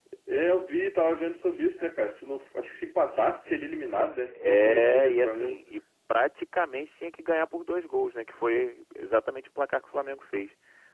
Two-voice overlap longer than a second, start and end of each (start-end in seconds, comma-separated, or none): 4.3-5.6